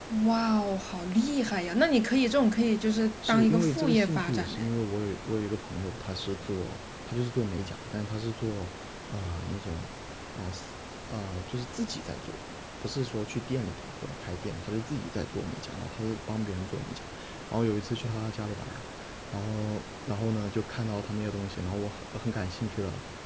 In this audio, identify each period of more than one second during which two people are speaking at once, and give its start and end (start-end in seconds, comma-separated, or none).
3.3-4.6